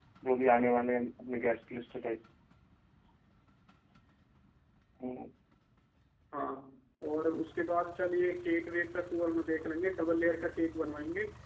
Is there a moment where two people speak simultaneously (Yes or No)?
No